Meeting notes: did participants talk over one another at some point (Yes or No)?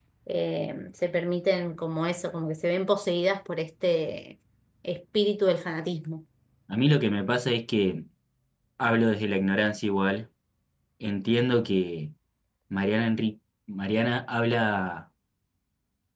No